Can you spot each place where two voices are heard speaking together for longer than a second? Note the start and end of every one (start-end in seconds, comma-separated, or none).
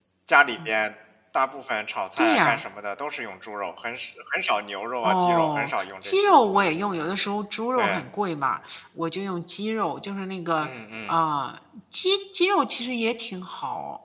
5.0-6.4